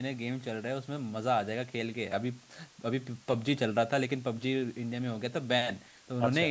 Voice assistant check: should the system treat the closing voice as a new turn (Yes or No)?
No